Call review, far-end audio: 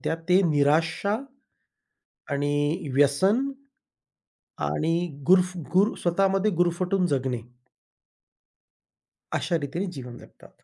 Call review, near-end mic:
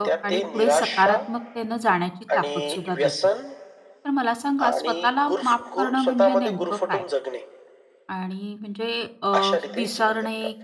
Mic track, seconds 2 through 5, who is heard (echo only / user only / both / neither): both